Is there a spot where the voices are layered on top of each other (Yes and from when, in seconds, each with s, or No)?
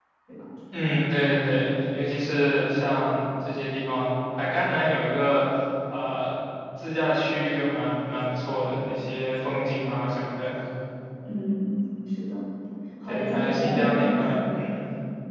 Yes, from 13.0 s